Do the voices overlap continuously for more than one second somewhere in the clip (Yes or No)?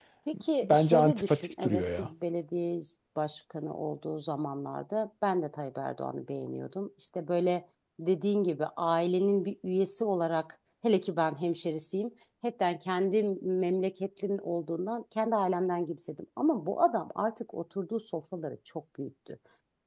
Yes